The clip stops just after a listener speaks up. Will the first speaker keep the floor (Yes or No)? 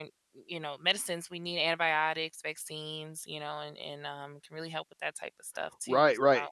No